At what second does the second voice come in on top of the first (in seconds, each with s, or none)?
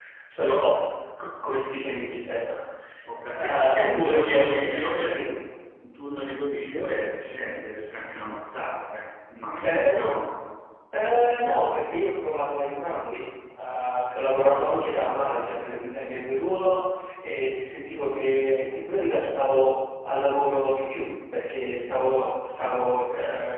3.4 s